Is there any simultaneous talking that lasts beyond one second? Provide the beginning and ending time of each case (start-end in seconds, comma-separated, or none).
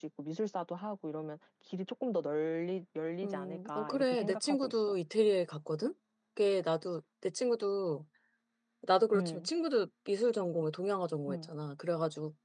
3.2-4.7